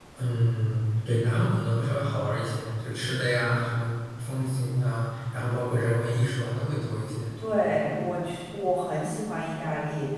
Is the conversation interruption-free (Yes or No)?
Yes